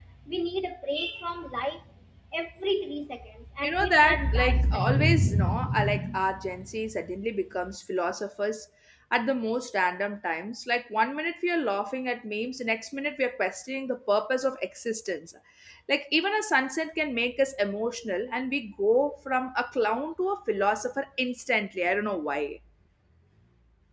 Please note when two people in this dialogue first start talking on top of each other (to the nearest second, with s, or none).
4 s